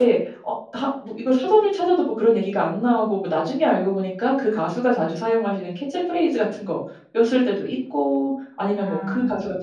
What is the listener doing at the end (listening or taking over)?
listening